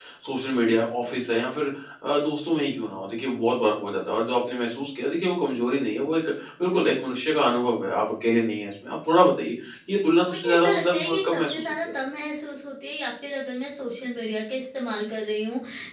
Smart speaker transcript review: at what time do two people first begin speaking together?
10.3 s

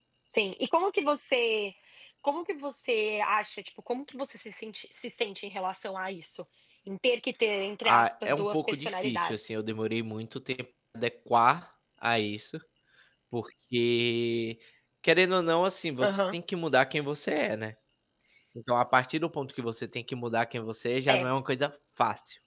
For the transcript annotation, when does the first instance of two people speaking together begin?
7.8 s

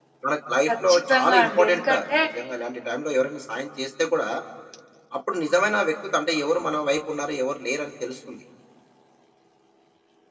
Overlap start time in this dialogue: 0.7 s

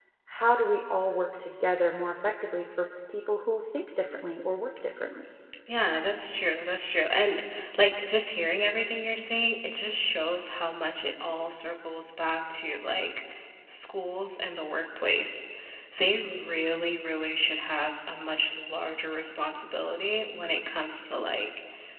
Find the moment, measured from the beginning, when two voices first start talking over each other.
none

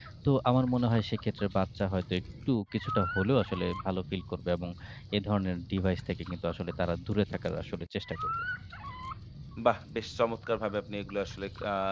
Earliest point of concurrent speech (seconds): none

